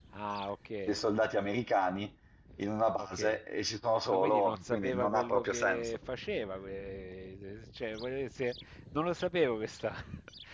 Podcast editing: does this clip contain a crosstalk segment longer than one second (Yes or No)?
Yes